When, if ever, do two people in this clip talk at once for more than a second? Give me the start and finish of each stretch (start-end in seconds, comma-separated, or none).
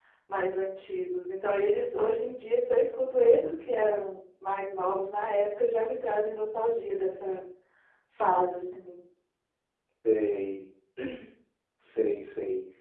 none